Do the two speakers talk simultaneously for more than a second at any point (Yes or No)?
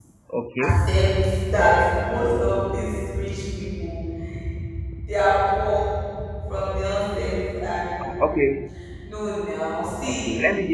No